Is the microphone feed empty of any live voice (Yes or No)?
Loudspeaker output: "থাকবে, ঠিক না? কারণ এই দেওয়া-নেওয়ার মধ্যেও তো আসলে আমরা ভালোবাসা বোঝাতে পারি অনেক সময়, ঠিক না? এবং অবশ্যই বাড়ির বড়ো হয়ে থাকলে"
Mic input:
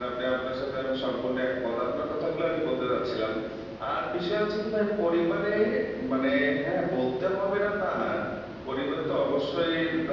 No